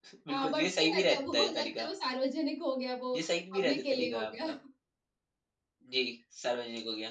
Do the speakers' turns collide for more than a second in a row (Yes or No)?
Yes